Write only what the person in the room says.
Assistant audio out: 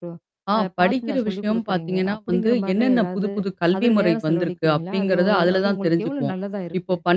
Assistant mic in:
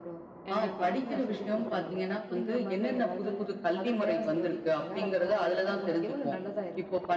கண்டிப்பா.

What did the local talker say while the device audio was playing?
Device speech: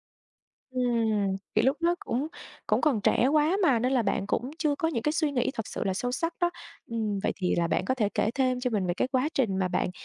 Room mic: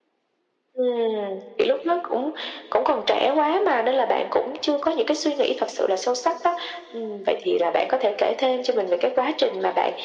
none

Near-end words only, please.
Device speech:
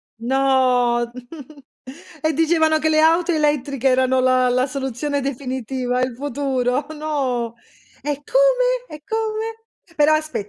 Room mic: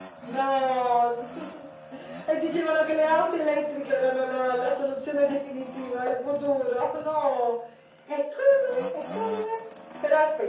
none

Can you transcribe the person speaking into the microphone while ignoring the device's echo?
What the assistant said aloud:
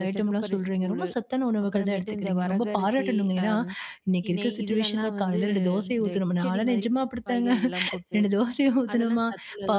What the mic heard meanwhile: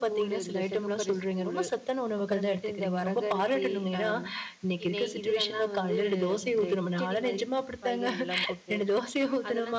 none

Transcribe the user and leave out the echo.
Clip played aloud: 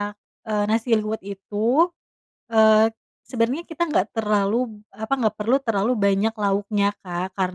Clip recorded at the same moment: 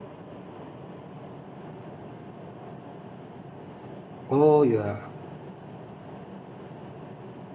Oh ya.

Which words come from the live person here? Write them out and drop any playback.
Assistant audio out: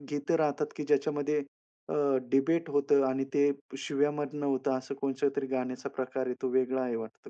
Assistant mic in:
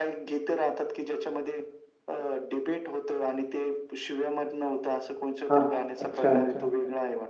हां, हां. अच्छा, अच्छा, अच्छा.

